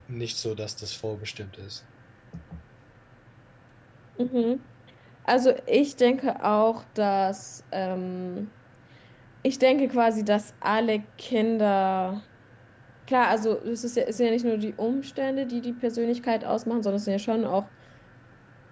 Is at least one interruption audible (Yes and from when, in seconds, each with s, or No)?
No